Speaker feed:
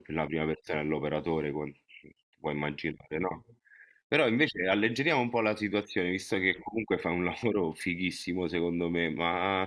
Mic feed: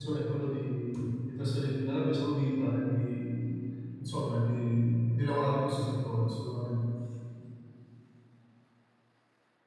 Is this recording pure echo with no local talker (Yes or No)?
No